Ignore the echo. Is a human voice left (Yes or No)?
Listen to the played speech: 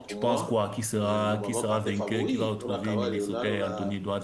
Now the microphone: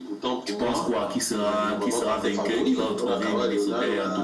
No